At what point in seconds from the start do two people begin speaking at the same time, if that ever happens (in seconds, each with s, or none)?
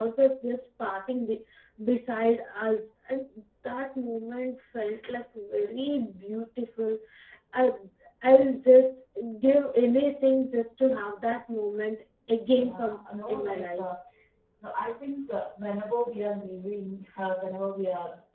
12.5 s